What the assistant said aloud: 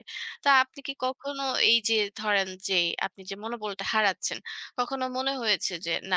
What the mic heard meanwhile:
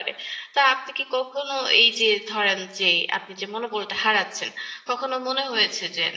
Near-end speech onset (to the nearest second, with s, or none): none